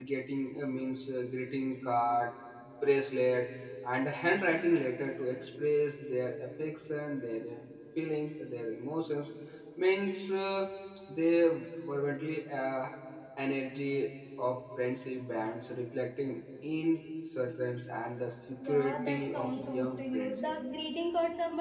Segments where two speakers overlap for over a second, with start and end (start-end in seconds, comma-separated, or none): 18.6-20.4